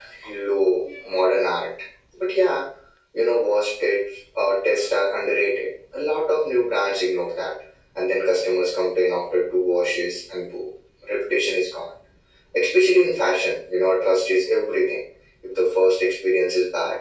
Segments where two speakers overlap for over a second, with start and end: none

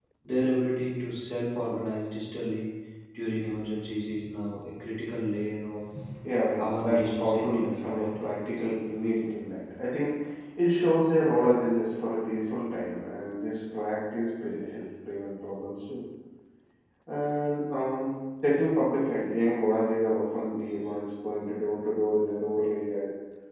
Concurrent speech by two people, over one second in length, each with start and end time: 6.6-8.2

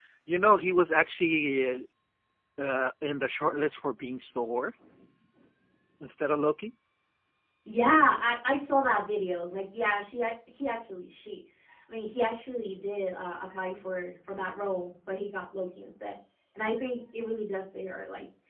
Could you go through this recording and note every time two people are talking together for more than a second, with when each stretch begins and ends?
none

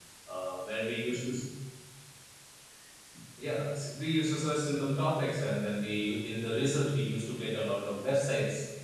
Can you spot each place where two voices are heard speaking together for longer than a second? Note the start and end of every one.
none

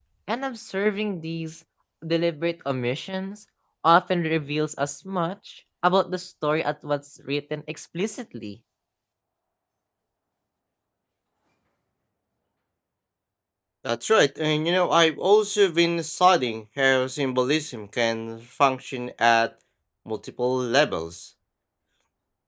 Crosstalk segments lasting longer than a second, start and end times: none

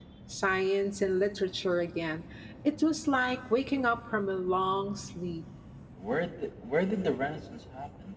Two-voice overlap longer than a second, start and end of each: none

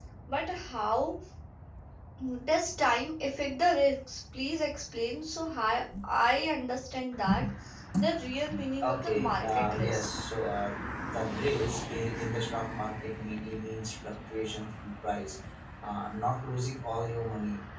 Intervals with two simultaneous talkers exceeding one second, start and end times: 8.8-10.1

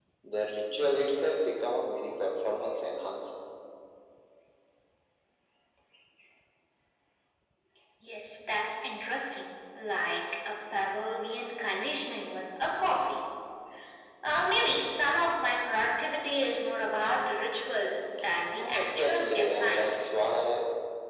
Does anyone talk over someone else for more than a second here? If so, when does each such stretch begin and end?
18.6-20.0

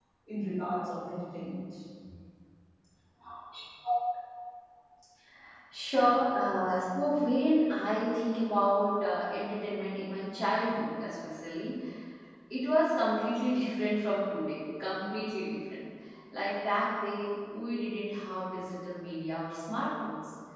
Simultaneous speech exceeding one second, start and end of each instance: none

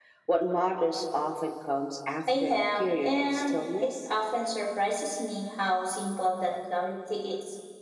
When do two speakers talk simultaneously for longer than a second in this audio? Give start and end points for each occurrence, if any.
2.3-4.1

